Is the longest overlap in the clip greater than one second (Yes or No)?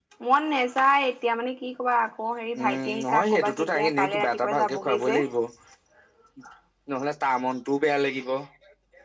Yes